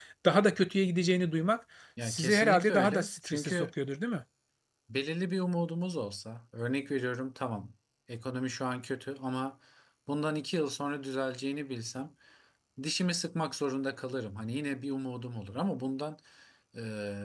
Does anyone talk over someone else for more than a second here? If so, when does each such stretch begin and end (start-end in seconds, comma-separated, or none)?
2.0-3.7